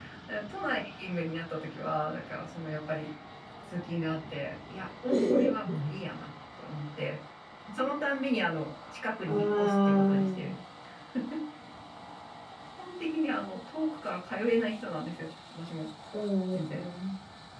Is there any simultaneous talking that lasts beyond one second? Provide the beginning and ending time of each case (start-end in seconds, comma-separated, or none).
9.3-10.6